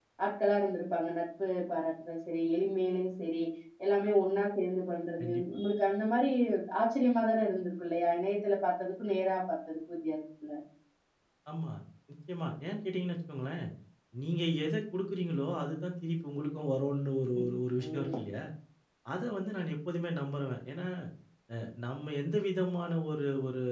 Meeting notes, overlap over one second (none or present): none